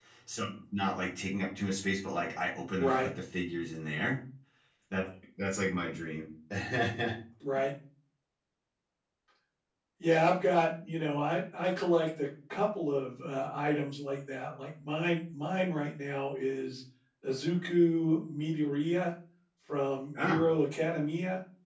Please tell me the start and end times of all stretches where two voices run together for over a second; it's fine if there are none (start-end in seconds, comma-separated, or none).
none